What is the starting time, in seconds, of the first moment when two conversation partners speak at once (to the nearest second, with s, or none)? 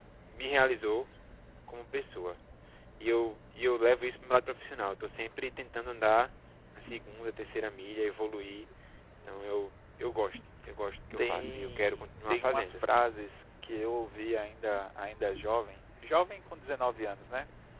11 s